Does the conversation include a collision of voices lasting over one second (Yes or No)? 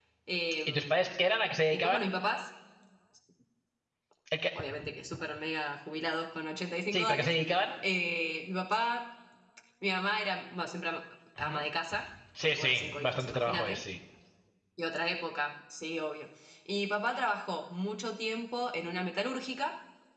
Yes